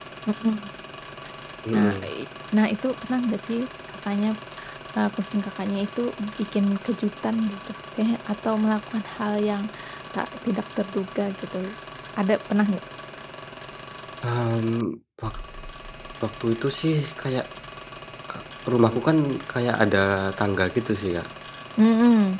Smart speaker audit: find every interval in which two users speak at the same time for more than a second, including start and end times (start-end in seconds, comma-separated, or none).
none